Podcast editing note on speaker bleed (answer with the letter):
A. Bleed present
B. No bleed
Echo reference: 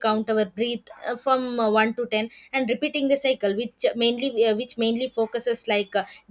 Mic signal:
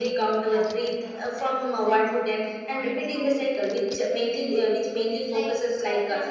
A